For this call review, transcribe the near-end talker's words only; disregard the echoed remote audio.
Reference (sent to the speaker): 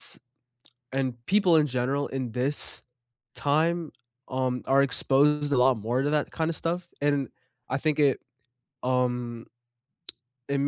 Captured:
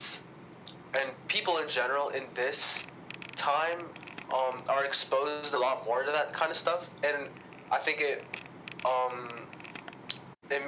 none

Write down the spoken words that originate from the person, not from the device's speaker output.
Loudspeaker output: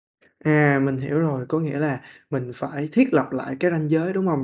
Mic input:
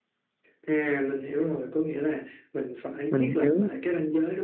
Mình hiểu.

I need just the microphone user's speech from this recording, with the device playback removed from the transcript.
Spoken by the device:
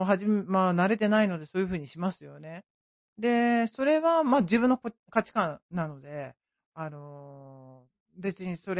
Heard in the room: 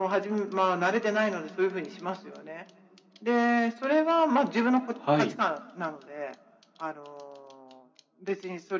はい。

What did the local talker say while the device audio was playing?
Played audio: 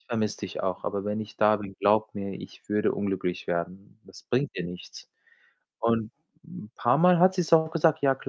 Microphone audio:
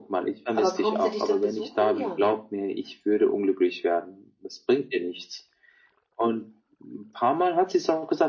Aber kommt sie dich dann besuchen? Ja, ne?

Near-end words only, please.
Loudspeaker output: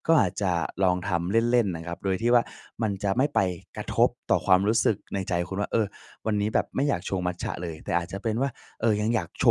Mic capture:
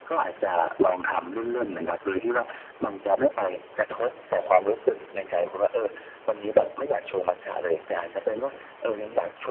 none

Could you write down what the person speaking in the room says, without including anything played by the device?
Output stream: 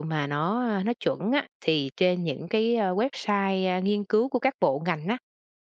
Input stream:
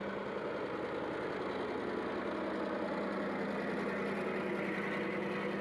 none

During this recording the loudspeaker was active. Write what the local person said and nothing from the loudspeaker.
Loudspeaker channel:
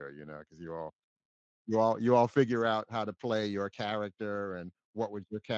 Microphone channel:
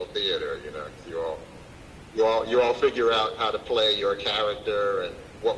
none

